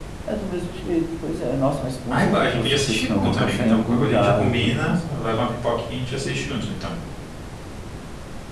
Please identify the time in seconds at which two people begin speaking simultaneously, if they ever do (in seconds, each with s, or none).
2.1 s